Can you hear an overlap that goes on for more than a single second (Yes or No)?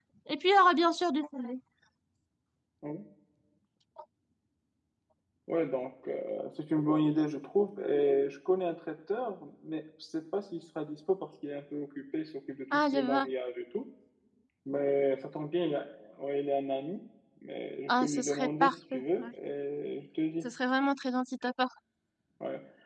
Yes